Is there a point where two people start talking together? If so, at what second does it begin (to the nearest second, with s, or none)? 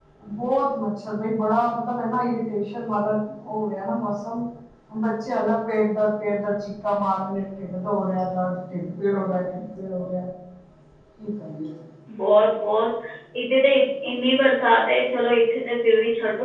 none